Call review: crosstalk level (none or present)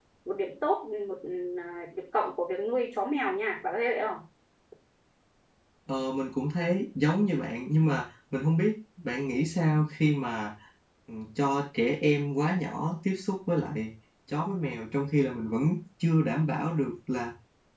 none